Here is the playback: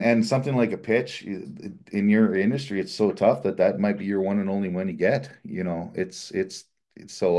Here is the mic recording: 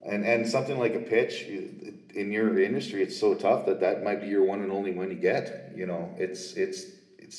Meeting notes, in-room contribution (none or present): none